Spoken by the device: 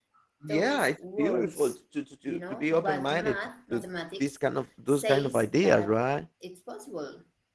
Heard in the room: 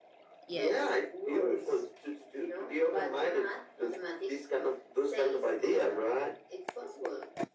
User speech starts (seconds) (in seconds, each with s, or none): 0.5 s